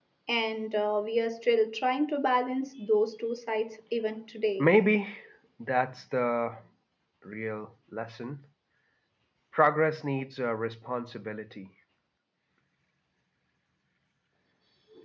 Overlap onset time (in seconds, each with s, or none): none